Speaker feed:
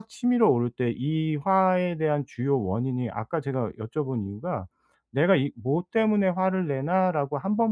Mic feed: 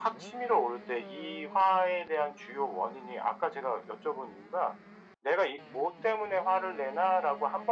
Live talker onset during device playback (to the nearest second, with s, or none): none